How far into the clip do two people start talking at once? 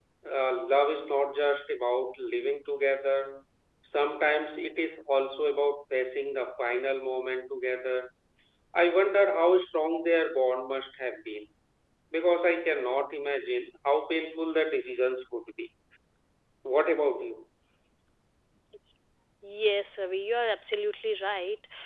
none

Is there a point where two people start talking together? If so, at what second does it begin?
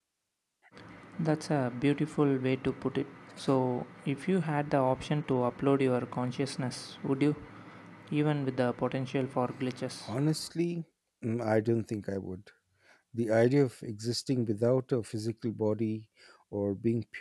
none

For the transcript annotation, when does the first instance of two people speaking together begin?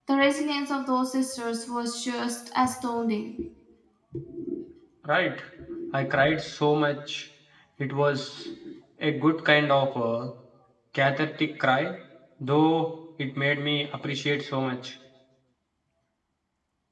none

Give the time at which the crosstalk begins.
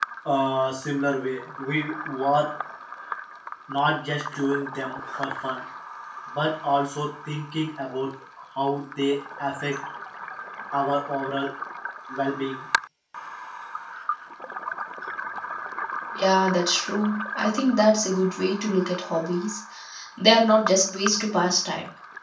none

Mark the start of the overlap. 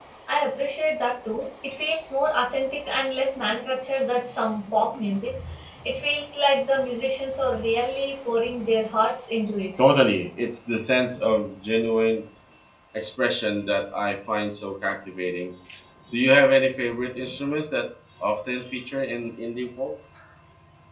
none

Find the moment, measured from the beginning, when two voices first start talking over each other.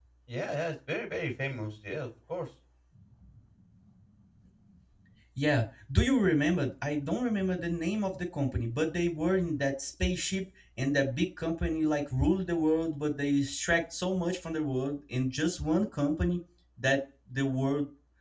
none

